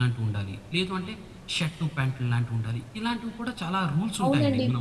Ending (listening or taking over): taking over